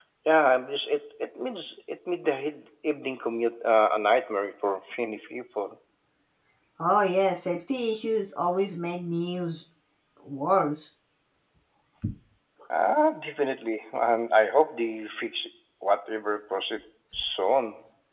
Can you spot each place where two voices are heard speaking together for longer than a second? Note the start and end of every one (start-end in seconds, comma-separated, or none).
none